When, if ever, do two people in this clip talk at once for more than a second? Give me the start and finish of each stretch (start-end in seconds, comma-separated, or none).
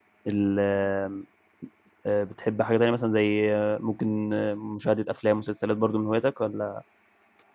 none